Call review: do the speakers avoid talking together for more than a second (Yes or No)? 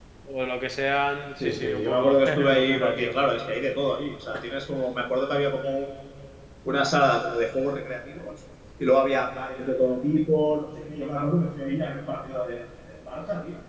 No